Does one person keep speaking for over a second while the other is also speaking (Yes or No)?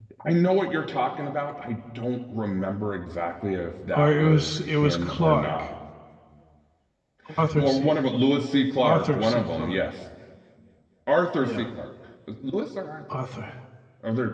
Yes